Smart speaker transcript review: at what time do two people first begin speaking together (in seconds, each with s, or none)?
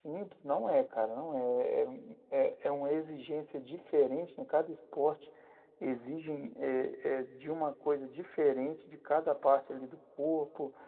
none